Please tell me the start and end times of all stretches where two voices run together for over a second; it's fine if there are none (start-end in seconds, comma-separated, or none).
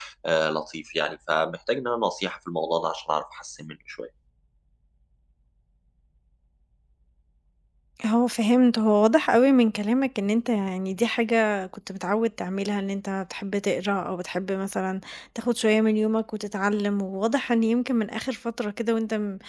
none